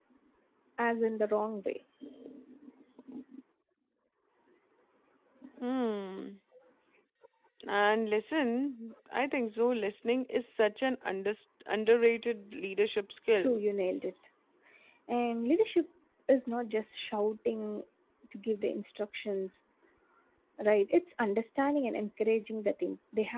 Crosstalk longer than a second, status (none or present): none